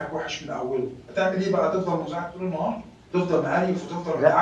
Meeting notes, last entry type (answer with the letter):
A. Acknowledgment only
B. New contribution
A